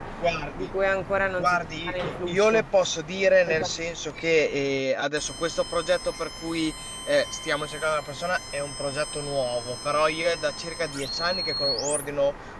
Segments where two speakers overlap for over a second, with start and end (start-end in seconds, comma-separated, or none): 1.4-2.6